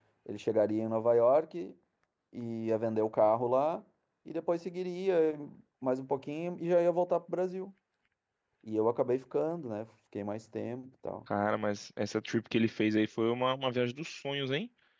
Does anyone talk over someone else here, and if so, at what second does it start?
none

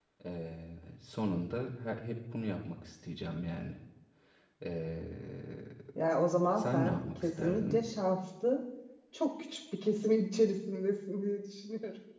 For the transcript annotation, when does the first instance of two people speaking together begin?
6.6 s

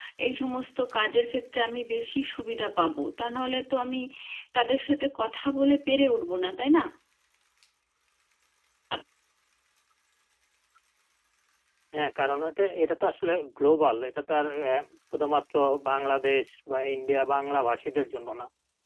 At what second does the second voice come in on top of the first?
none

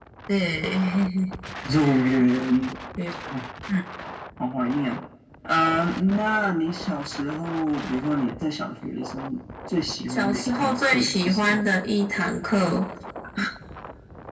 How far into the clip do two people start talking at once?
10.1 s

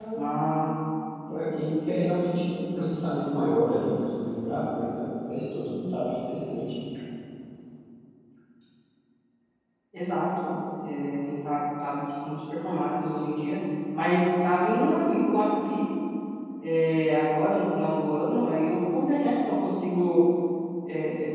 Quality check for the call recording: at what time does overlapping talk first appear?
none

